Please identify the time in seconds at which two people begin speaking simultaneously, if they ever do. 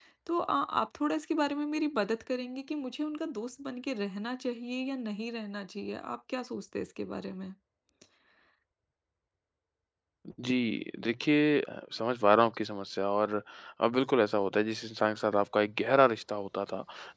none

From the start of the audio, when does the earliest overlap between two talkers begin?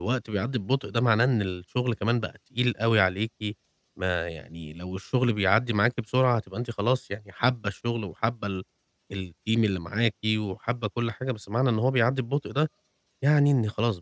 none

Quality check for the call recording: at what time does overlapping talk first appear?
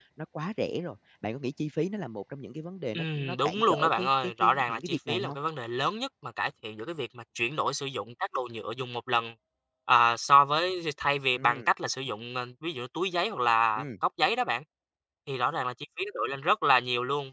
2.9 s

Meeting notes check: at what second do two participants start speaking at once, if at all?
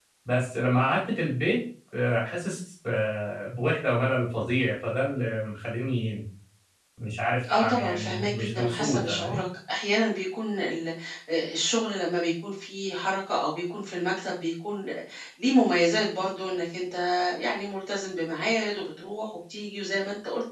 7.5 s

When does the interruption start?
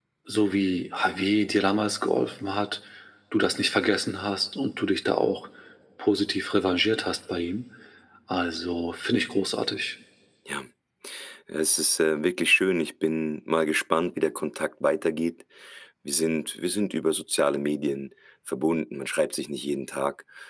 none

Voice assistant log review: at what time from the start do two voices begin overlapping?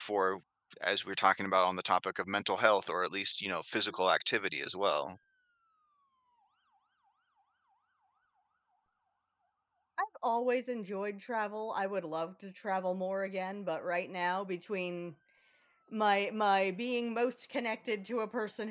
none

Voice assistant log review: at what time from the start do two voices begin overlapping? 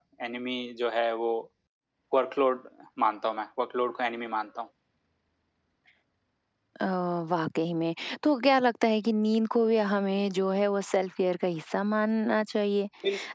none

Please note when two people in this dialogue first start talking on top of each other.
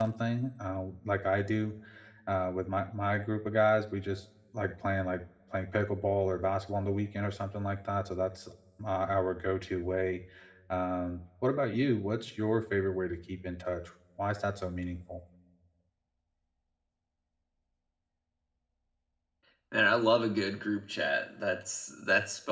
none

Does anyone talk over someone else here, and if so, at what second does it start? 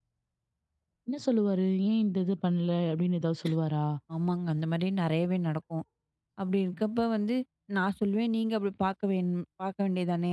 none

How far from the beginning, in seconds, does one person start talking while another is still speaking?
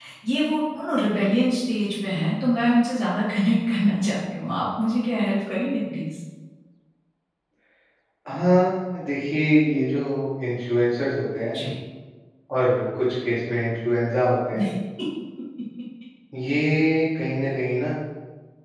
none

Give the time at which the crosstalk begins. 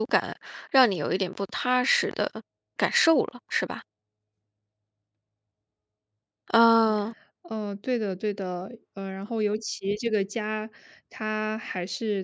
none

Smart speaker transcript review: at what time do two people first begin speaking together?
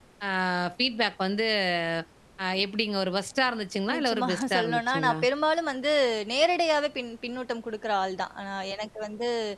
3.9 s

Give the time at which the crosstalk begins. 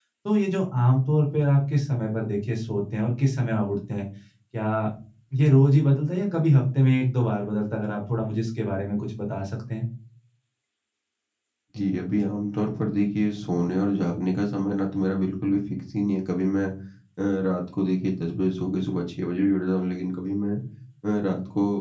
none

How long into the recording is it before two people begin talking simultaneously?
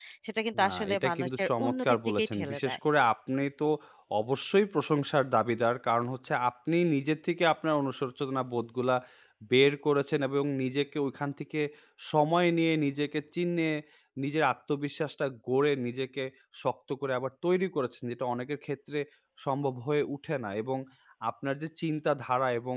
0.6 s

